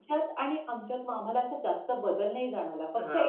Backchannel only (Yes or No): No